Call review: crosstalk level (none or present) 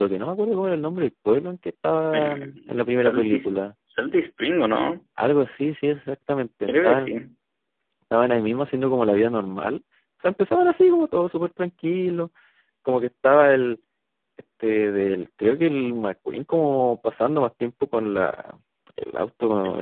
present